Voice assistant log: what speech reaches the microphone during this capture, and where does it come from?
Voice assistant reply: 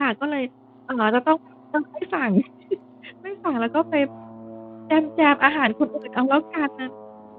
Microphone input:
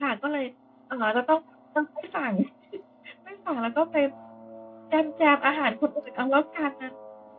echo only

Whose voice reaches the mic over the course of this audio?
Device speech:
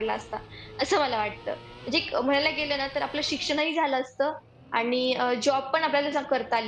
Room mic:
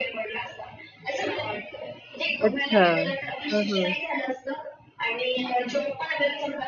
both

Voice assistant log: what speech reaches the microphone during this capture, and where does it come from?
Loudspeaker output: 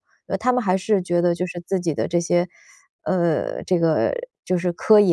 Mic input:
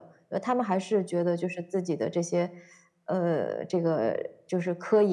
echo only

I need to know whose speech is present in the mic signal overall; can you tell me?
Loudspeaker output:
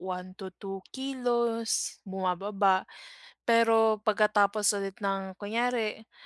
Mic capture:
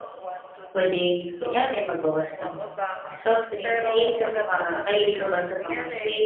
both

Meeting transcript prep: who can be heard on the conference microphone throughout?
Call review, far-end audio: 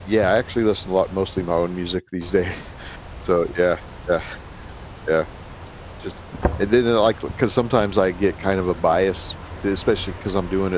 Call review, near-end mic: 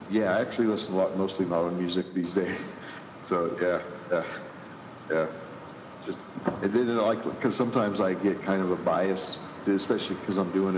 echo only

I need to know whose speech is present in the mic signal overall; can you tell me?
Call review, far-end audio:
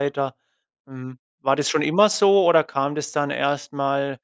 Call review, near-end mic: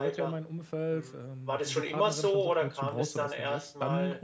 both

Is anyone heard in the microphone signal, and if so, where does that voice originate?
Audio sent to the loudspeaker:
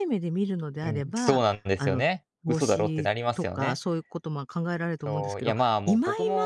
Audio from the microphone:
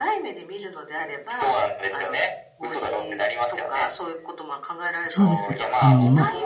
both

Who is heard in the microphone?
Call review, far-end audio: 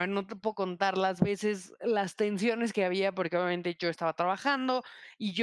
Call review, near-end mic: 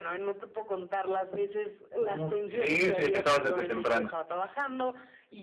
both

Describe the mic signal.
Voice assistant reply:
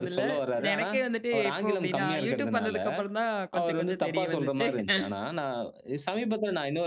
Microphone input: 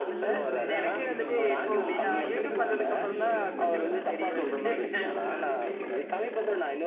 both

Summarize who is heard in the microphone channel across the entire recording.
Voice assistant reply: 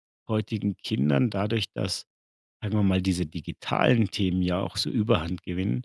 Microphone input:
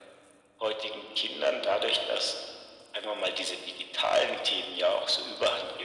echo only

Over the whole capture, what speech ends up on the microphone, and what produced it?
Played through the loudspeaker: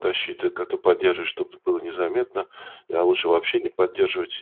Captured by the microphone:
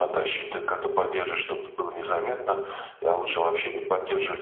echo only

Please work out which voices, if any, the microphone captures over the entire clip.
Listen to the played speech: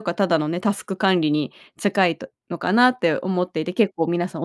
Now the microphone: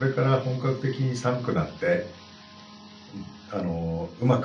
user only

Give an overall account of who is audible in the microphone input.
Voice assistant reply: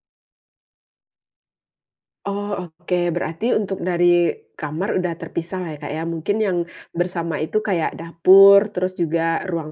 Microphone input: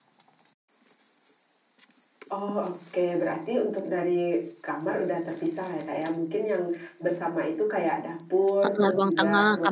both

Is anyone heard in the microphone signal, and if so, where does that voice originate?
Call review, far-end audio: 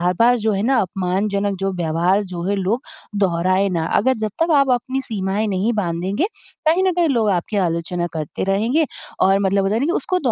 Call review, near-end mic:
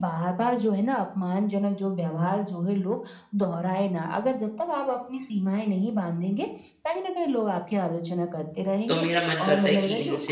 both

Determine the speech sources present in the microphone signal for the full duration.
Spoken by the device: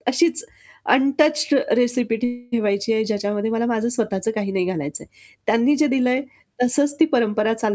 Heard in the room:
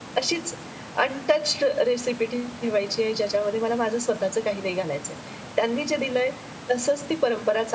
echo only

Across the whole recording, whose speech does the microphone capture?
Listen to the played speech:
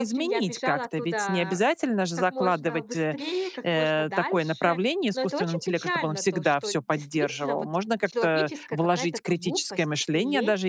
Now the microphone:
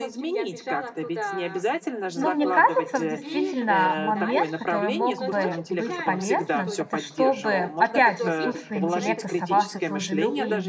both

